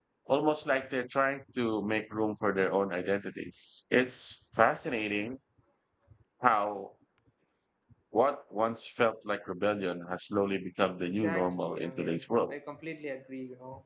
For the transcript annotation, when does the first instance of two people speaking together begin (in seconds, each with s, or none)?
11.2 s